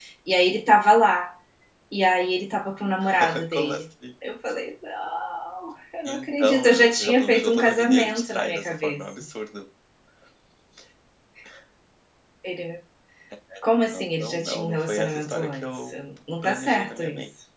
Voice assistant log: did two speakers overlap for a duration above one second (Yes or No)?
Yes